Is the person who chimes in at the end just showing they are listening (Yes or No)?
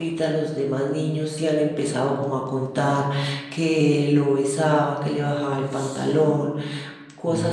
Yes